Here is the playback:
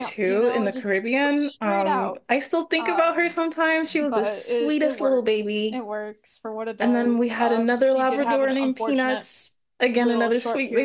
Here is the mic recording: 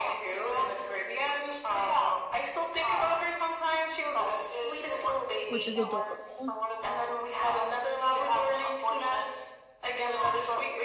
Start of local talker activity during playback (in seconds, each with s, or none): 5.5 s